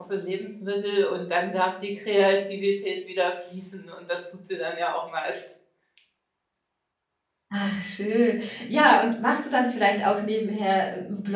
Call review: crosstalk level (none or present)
none